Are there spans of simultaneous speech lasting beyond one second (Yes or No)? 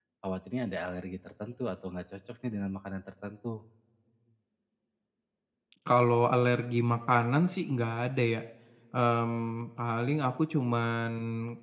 No